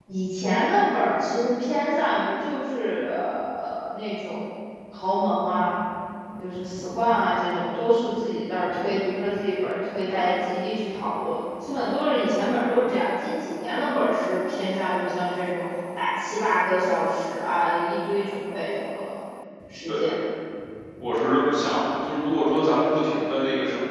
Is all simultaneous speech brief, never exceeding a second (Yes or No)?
Yes